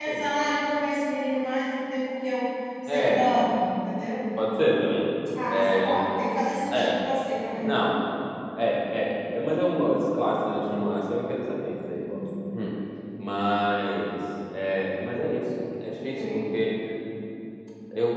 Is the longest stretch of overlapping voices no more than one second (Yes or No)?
Yes